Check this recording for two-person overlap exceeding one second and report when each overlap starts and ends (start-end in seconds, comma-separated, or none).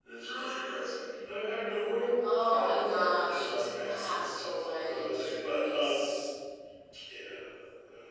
2.5-6.1